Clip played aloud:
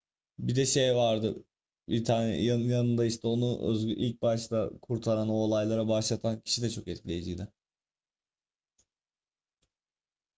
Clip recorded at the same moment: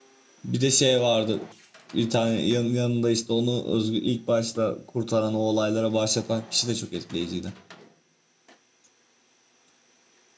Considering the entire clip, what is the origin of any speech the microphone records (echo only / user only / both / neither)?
echo only